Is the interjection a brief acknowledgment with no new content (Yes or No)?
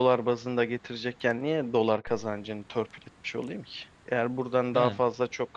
Yes